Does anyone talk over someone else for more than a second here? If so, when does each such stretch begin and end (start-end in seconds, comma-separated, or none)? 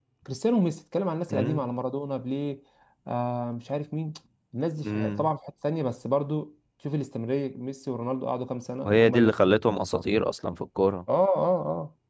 none